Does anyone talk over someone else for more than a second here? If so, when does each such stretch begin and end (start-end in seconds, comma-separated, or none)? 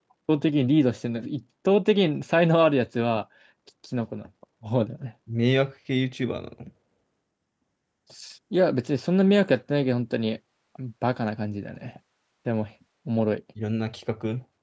none